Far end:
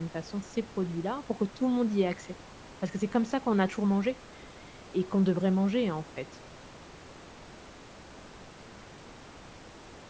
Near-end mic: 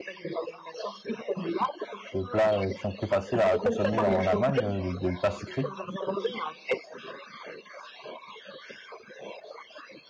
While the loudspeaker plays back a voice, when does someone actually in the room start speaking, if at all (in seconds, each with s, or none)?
2.1 s